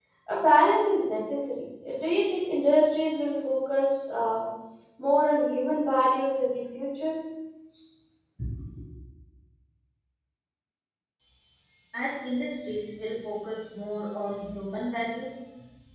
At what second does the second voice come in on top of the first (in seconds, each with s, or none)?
none